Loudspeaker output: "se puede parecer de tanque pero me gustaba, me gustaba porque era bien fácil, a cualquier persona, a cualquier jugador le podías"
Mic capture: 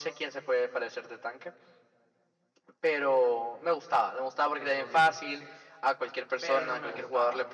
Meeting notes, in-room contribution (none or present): present